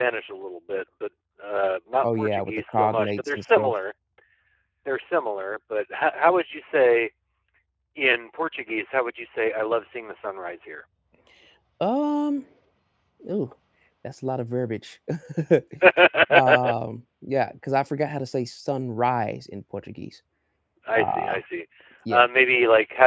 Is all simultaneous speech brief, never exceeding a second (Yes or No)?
No